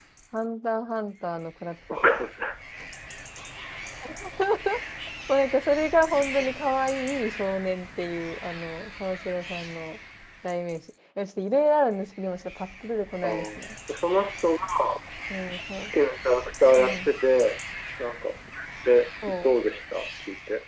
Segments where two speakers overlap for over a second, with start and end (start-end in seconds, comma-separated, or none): none